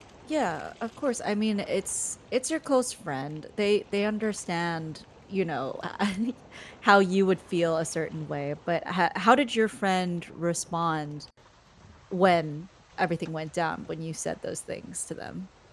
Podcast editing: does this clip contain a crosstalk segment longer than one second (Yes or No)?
No